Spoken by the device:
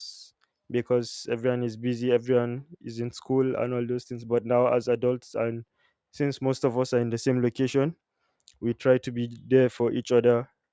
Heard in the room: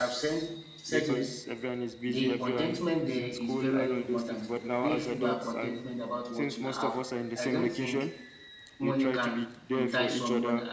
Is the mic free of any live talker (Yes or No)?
No